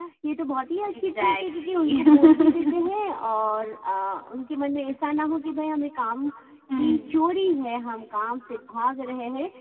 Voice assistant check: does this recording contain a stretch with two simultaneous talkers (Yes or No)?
Yes